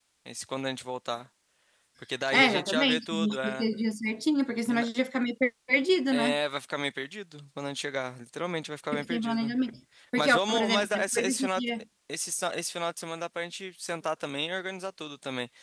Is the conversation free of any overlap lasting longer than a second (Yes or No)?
No